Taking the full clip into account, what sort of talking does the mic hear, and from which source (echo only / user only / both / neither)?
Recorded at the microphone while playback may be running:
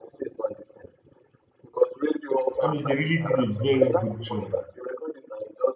both